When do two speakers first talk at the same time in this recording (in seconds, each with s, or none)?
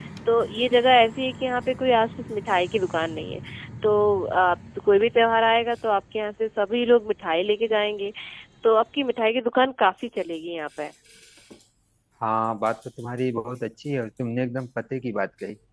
none